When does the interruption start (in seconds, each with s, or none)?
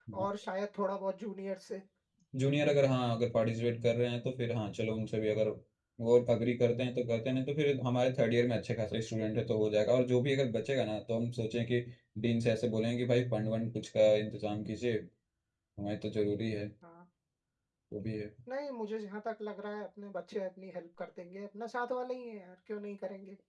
none